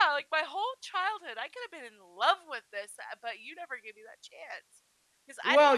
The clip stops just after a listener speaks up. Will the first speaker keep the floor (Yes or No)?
No